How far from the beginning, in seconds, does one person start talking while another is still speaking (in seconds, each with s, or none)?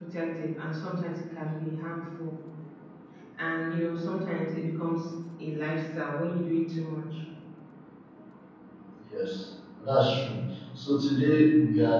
none